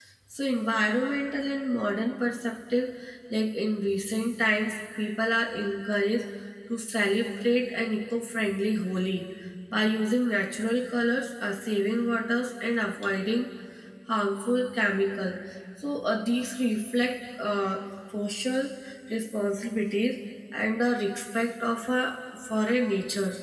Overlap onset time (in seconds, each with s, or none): none